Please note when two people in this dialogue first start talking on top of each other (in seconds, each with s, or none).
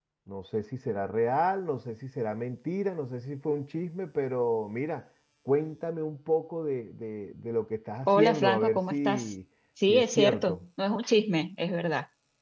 8.0 s